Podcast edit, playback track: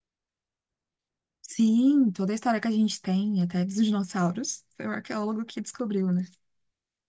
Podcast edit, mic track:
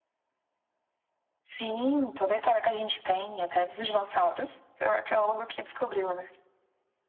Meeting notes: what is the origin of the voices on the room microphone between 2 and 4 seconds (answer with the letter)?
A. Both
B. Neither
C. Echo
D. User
C